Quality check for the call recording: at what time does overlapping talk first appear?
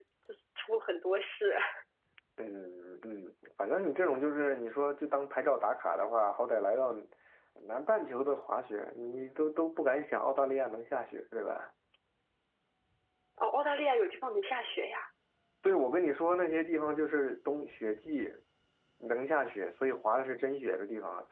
none

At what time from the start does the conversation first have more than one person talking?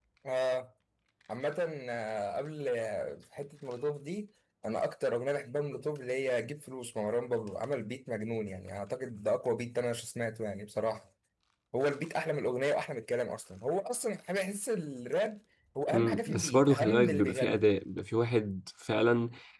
15.9 s

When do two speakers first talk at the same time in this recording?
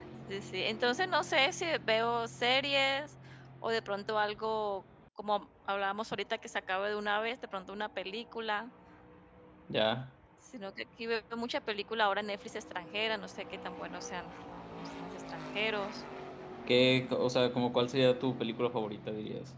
none

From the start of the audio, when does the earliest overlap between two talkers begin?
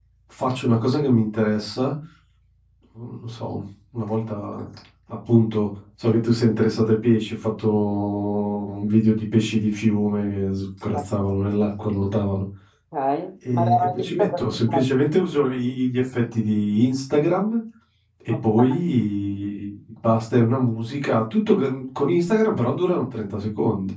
13.5 s

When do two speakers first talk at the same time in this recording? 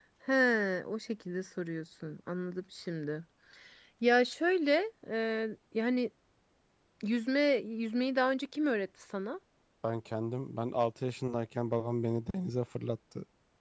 none

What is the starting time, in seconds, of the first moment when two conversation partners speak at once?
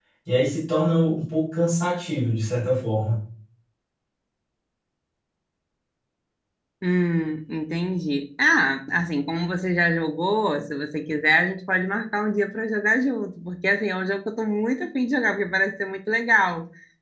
none

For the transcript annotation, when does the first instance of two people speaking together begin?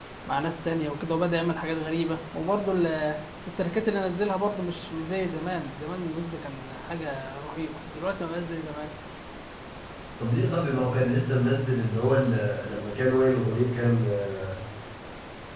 none

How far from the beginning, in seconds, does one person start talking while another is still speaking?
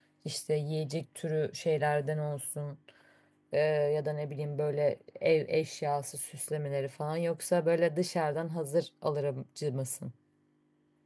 none

